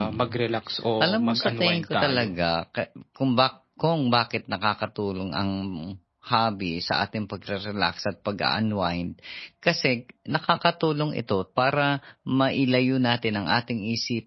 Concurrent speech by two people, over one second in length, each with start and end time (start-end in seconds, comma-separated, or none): 1.0-2.3